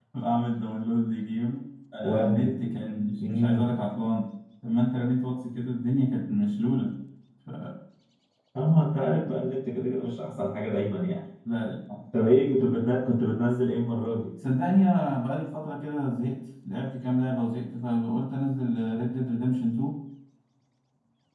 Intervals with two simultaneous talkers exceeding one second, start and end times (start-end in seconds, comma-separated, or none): none